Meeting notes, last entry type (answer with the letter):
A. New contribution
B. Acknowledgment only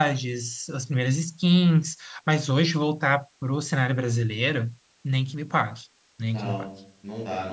A